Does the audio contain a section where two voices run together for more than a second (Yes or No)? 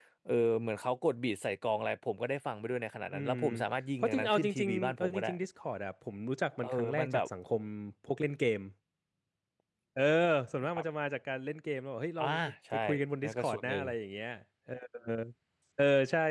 Yes